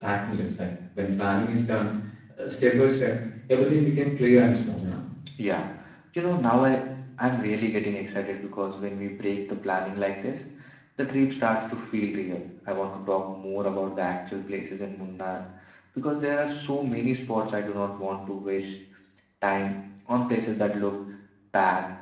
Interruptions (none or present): none